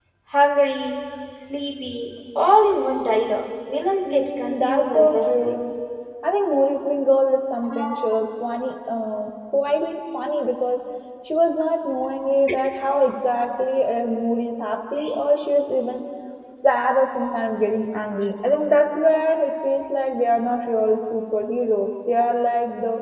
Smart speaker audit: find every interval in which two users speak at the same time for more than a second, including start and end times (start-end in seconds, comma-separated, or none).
4.0-5.6